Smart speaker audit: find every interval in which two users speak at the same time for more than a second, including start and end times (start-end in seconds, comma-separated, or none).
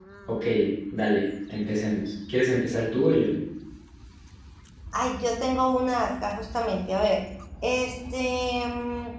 none